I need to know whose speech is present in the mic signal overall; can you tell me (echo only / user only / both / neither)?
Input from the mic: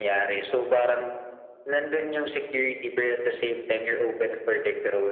echo only